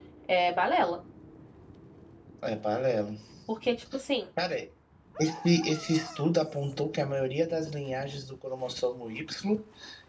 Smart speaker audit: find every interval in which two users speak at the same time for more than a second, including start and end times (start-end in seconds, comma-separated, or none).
none